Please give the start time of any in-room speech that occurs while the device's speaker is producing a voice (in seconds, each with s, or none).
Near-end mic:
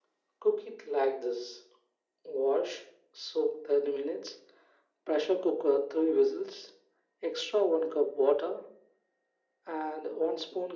none